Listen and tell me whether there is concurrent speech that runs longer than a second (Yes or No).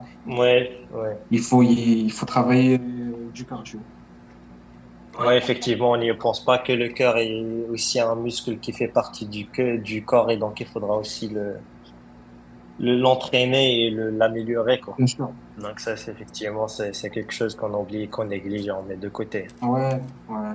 No